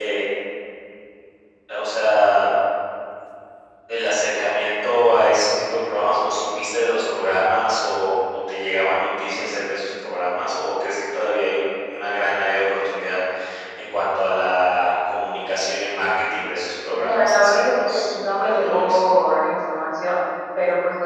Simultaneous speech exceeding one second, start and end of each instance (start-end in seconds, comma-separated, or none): 16.9-19.0